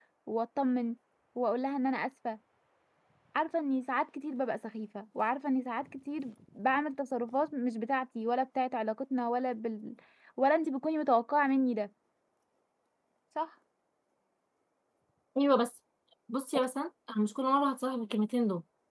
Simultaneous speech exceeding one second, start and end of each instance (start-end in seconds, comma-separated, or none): none